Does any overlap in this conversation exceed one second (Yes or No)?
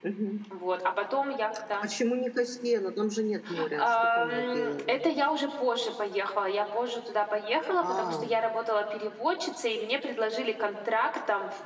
Yes